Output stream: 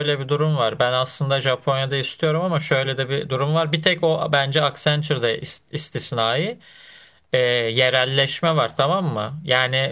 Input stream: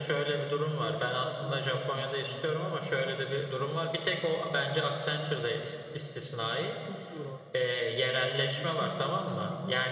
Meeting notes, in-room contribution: present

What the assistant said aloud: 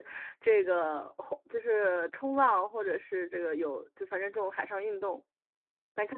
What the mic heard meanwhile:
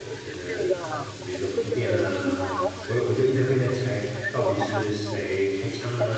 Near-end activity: present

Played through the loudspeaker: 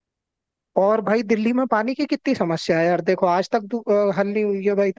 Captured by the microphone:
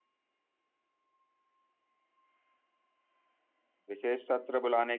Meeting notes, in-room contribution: present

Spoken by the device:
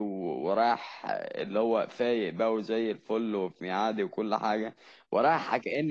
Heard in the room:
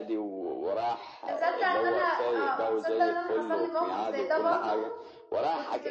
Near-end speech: present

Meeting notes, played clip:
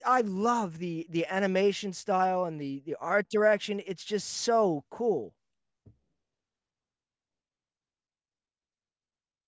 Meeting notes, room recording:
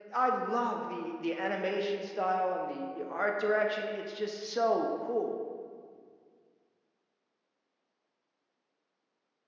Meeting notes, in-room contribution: none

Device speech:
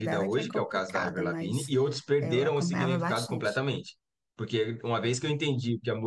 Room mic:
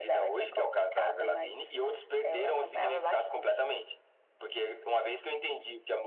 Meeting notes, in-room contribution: none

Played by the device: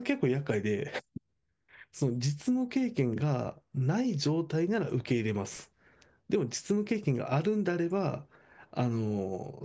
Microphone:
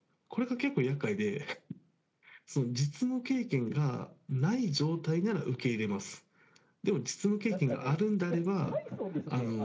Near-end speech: present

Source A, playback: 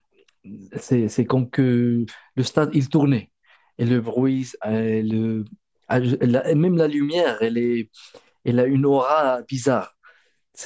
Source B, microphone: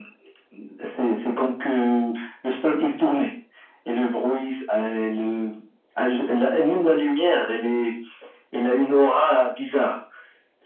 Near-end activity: none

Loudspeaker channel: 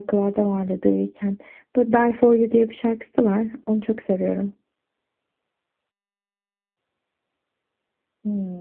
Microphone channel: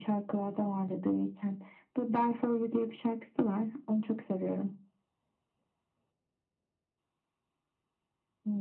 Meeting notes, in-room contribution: none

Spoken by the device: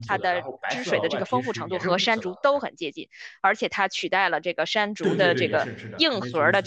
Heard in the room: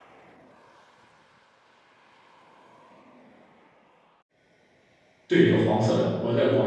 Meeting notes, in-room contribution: present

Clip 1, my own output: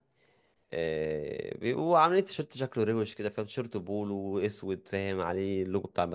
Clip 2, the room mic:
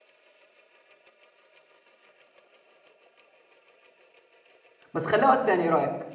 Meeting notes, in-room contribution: present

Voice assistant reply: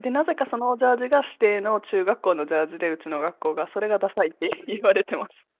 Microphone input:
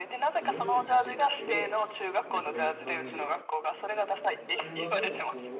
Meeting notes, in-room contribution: present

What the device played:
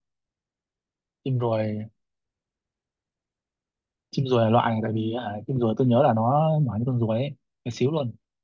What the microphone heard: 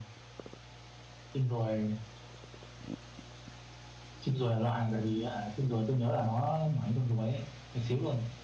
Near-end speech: none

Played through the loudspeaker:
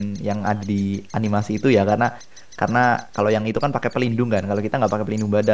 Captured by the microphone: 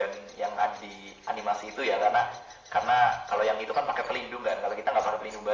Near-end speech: none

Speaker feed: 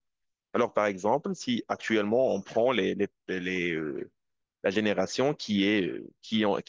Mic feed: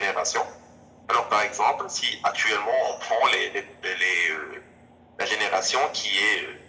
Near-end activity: none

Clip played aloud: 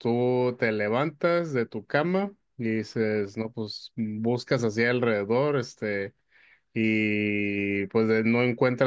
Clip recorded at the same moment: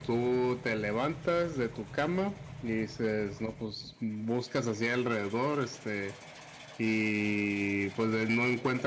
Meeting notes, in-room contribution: none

